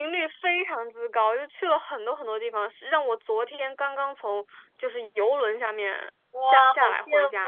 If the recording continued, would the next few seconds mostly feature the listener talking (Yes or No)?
Yes